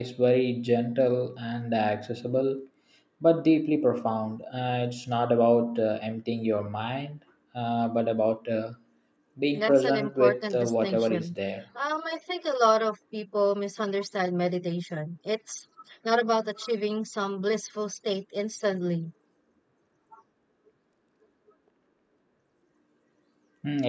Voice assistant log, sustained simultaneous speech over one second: present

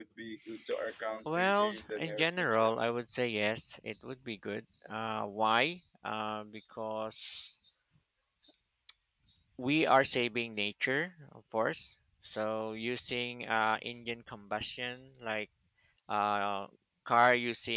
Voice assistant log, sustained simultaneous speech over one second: present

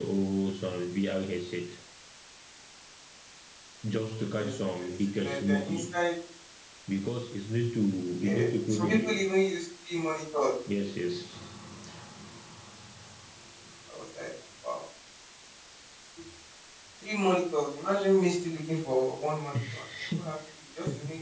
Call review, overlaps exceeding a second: present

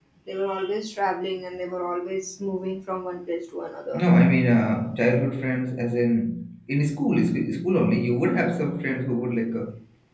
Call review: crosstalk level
none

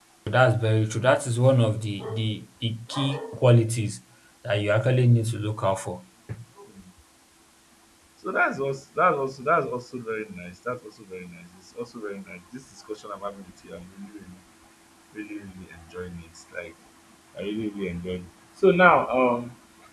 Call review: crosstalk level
none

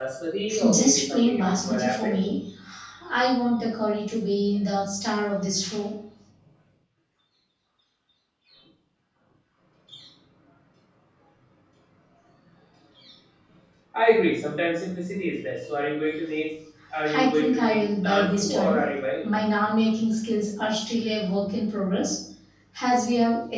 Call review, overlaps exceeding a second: present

